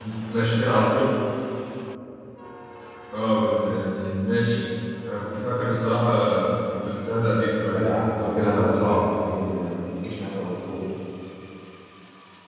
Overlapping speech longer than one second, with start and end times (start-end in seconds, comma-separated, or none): 7.7-9.1